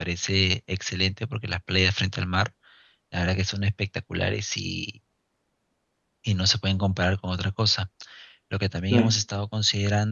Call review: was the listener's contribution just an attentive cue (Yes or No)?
Yes